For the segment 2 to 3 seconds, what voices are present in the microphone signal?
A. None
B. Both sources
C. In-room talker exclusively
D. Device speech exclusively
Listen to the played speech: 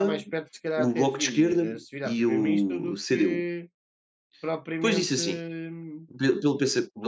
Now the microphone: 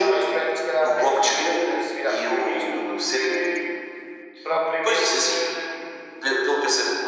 D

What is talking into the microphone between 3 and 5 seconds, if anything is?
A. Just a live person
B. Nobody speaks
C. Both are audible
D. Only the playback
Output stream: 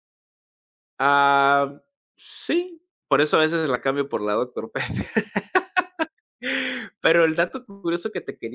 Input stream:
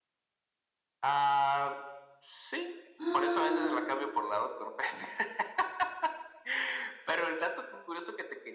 C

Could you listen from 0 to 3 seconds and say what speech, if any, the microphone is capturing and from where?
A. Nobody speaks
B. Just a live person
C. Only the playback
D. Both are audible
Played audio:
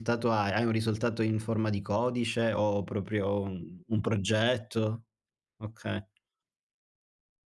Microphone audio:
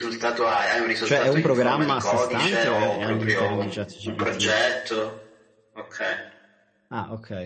D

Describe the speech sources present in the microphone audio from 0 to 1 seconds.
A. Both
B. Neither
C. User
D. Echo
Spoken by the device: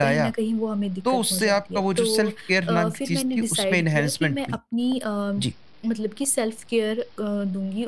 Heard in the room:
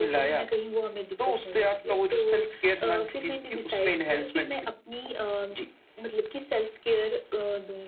D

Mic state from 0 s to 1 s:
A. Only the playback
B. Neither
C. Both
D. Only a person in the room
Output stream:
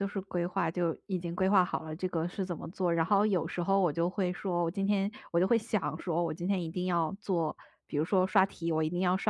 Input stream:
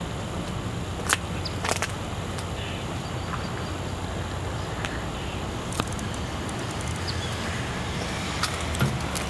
B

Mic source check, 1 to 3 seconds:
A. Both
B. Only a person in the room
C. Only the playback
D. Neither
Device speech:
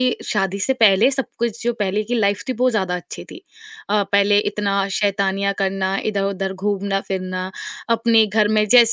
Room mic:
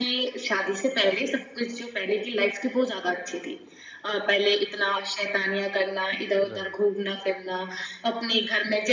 C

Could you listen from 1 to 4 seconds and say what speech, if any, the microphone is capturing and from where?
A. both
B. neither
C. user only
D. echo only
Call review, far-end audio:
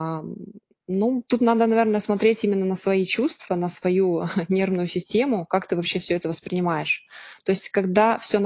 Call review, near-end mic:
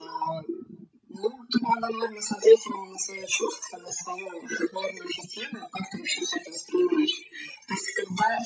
D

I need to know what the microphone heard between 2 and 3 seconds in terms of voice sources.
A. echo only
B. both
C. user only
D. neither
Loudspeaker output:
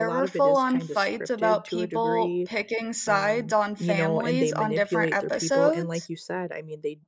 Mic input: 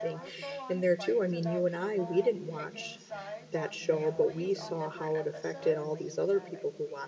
B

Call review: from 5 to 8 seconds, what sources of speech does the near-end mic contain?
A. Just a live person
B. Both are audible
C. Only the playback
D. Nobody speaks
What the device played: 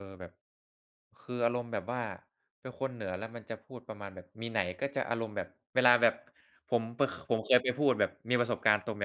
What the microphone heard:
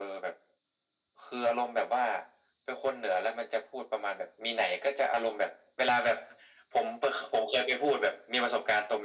C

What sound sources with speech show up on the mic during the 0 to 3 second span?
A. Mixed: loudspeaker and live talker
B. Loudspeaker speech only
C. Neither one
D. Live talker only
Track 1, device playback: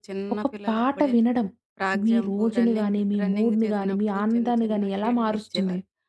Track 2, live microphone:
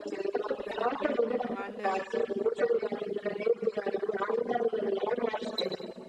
A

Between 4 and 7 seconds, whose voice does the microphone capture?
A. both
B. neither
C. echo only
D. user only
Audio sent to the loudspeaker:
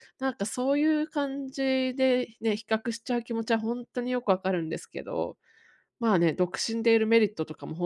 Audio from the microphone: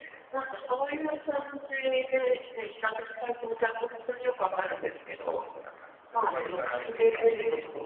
A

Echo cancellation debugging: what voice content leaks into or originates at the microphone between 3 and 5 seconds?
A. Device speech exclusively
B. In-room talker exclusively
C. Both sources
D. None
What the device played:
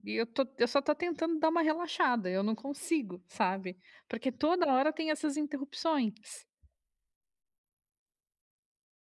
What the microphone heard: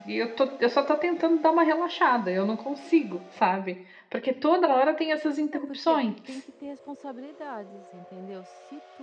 A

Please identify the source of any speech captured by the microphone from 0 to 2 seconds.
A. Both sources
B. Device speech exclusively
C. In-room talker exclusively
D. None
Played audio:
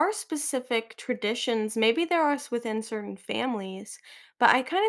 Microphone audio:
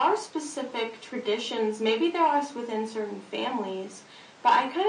B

